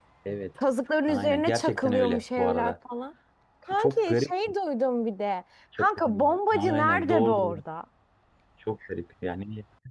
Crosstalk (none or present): present